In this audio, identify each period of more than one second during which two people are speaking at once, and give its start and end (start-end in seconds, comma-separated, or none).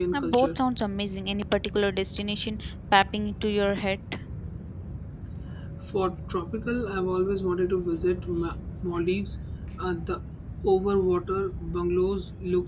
none